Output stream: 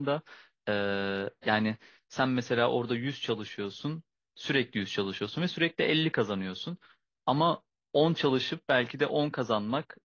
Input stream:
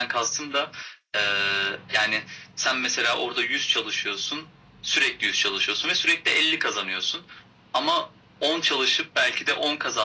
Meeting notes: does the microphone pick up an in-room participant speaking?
No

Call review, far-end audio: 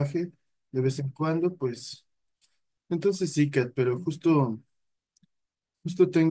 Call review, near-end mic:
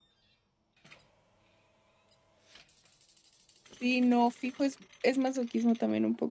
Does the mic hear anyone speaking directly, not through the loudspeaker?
Yes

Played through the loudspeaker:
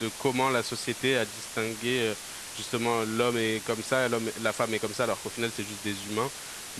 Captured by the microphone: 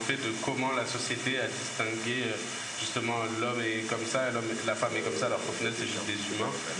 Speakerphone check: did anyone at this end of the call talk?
Yes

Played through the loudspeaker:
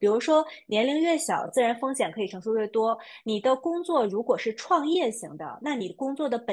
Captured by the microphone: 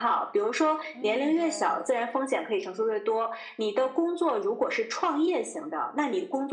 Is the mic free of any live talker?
No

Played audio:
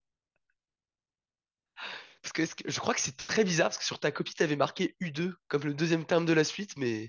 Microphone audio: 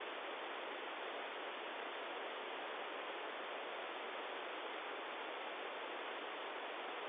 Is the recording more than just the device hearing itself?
No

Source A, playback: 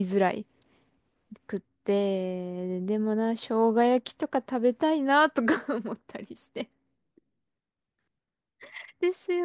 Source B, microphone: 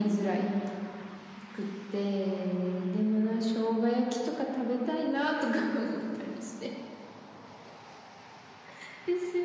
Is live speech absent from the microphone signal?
Yes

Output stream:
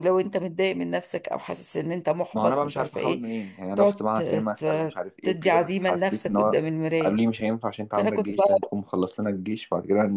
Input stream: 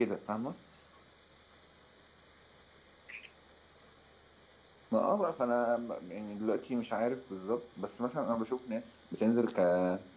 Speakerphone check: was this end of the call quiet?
No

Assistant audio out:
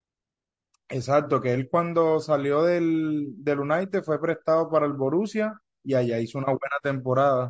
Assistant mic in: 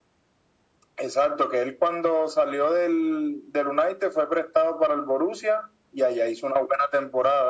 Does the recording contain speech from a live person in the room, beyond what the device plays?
No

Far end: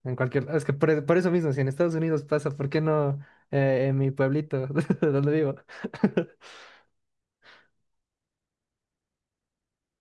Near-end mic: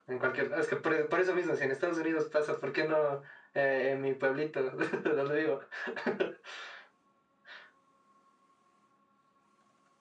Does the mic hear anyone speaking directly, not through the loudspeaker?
No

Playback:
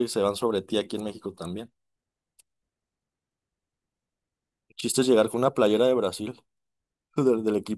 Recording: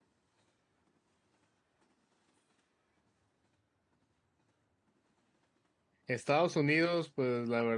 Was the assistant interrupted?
Yes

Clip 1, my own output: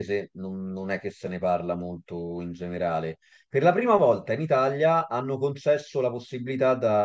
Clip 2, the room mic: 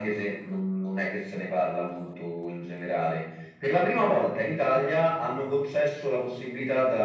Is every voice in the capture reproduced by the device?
Yes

